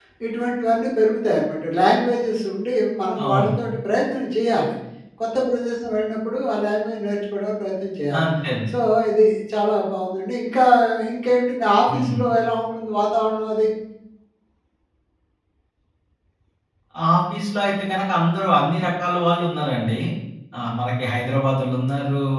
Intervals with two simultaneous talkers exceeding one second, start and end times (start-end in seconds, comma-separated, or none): none